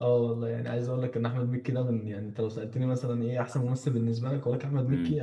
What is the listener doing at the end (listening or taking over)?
listening